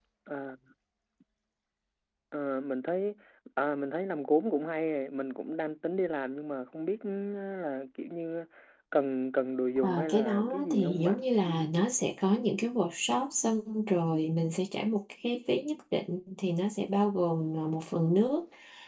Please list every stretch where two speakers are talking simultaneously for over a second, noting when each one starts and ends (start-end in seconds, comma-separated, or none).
9.8-11.2